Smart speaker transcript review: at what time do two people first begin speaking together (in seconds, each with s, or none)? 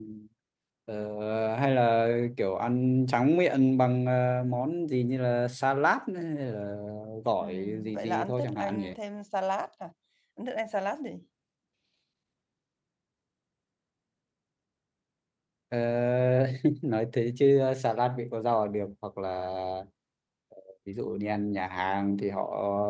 7.4 s